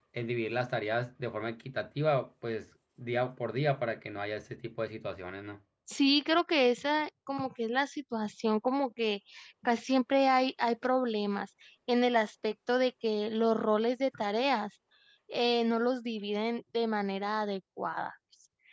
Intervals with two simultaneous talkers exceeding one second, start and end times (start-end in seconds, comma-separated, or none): none